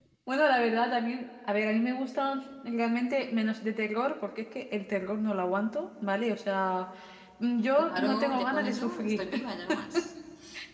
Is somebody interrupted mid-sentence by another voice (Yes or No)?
Yes